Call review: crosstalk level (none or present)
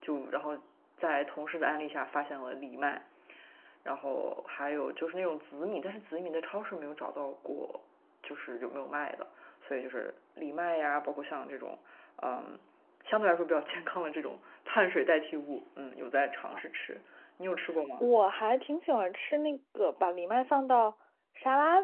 none